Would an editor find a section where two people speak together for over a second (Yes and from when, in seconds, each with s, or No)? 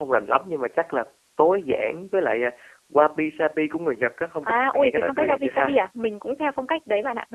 Yes, from 4.4 s